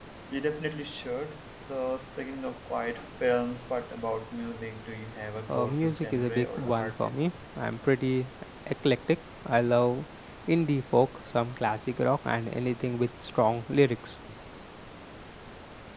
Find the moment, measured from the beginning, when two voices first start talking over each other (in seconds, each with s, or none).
5.5 s